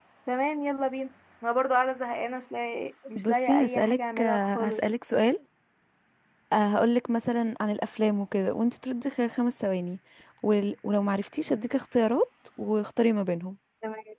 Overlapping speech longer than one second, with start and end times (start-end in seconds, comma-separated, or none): 3.2-4.8